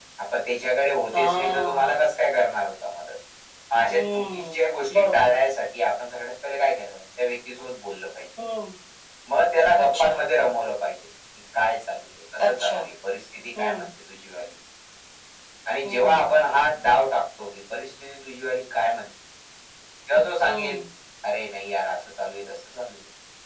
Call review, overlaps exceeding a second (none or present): present